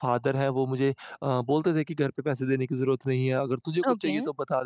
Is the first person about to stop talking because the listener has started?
No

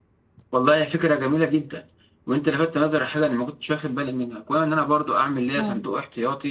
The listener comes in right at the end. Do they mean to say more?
No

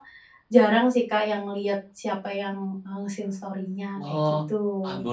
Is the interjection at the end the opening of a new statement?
Yes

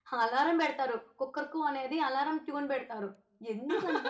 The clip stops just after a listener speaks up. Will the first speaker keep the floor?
Yes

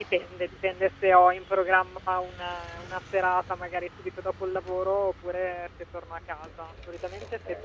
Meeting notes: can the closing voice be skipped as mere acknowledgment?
Yes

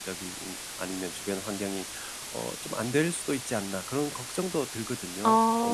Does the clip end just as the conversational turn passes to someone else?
Yes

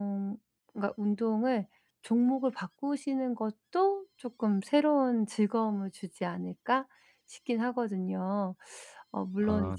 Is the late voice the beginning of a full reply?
No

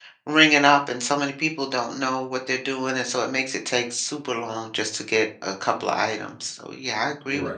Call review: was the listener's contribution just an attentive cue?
No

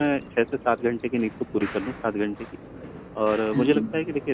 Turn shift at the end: No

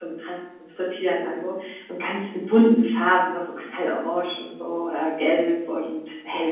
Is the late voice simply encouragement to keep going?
Yes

